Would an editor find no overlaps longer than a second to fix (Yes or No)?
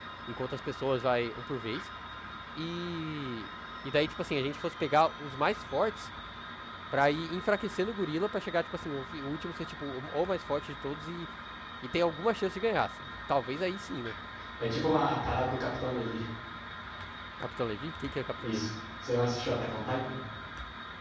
Yes